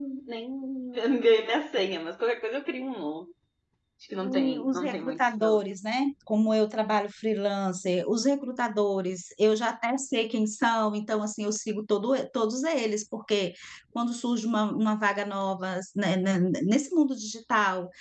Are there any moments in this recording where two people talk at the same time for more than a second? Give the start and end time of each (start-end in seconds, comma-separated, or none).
4.2-5.7